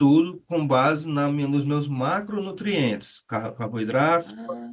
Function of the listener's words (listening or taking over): listening